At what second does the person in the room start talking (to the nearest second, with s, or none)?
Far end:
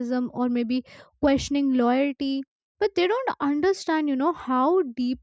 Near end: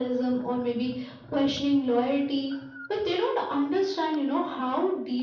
none